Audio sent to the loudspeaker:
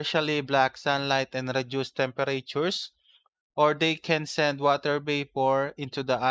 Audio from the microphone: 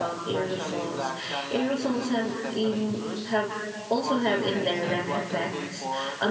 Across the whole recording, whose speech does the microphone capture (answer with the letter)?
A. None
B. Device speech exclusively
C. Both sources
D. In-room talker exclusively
C